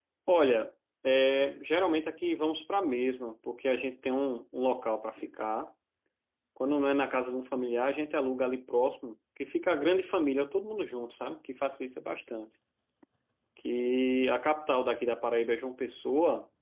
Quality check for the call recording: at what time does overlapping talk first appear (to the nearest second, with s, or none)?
none